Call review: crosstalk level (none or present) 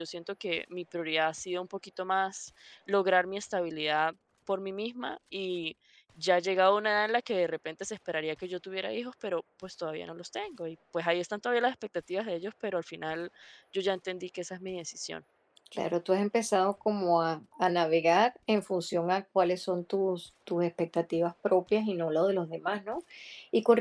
none